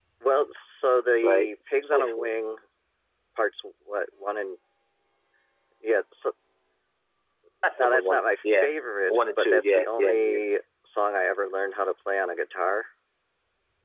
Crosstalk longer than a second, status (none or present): present